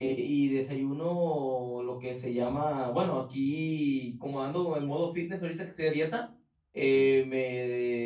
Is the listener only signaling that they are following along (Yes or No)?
Yes